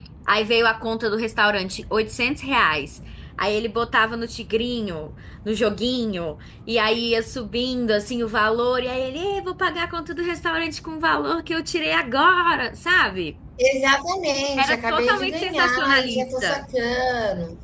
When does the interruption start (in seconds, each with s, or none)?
14.6 s